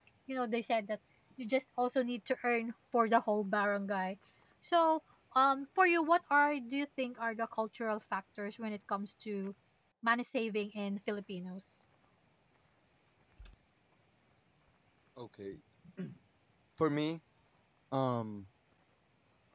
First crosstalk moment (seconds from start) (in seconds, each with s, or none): none